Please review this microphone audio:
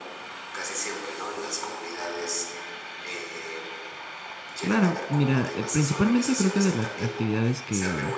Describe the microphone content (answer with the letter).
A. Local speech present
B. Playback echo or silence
A